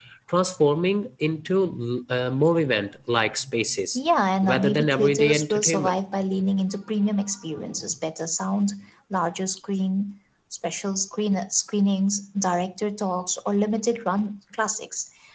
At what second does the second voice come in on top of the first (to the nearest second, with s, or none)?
4 s